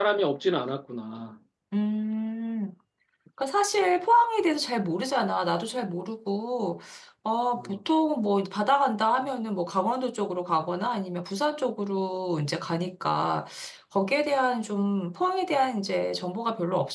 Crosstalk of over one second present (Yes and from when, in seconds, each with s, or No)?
No